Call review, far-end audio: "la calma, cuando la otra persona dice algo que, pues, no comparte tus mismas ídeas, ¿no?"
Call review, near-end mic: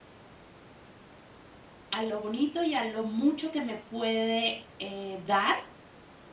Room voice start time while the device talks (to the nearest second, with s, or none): 2 s